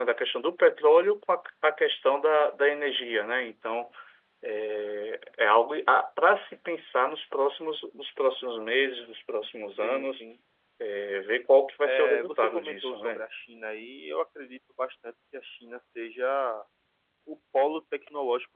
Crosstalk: present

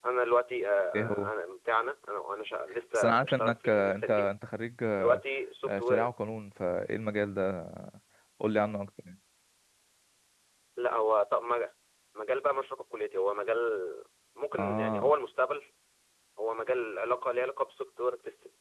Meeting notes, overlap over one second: present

